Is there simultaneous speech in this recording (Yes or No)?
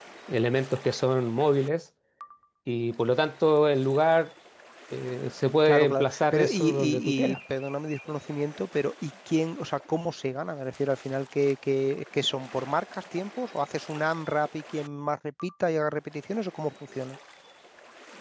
Yes